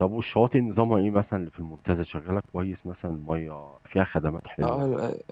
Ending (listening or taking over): taking over